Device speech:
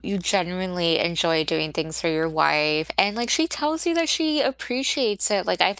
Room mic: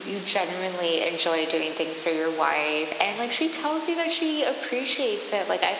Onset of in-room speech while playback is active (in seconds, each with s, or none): none